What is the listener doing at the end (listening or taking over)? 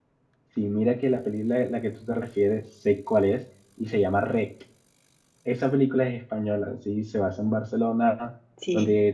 listening